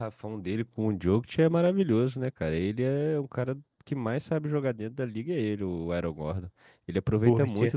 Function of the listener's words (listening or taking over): listening